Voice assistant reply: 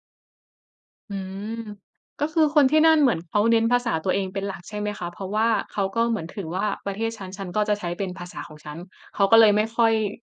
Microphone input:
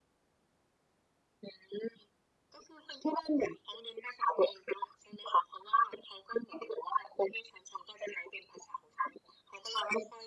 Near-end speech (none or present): none